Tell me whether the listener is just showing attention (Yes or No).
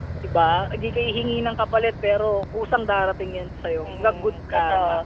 No